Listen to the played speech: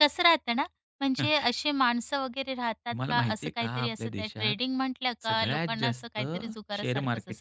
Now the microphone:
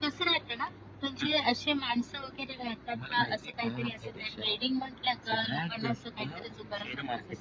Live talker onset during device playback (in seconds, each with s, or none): none